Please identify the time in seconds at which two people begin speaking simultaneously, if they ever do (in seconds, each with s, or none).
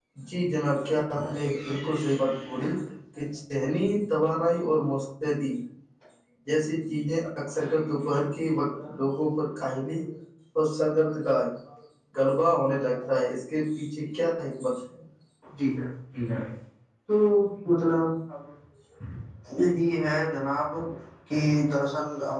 none